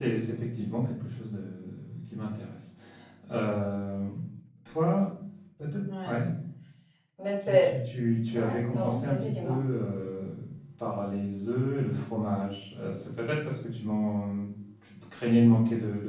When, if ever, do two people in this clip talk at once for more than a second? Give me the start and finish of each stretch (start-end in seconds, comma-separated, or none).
8.3-9.6